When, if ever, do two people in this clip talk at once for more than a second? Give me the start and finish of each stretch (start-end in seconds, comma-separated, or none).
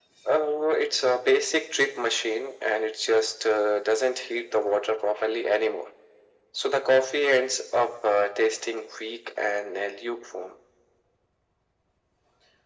none